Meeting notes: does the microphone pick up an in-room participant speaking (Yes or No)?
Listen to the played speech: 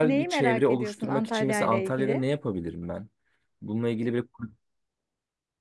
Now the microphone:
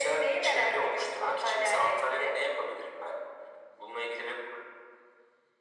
No